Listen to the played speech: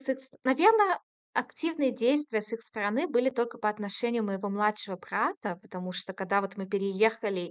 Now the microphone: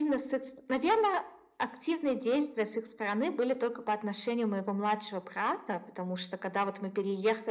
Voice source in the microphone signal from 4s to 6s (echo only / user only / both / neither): echo only